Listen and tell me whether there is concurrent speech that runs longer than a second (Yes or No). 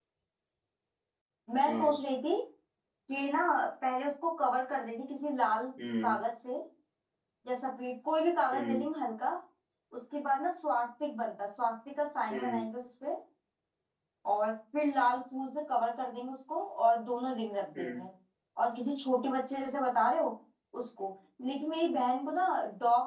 No